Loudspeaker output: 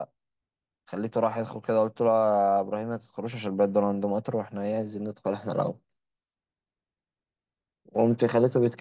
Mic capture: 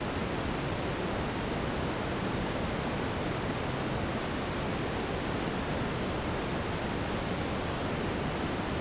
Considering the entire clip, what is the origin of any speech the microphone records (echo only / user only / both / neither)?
neither